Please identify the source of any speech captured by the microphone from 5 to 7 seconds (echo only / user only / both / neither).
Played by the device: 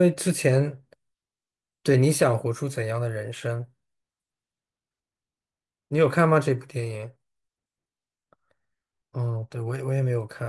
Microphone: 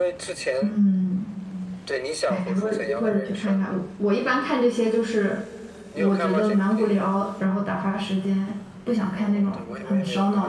both